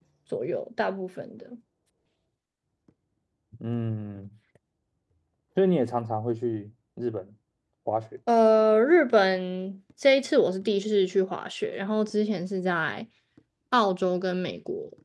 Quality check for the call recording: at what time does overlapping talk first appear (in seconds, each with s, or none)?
none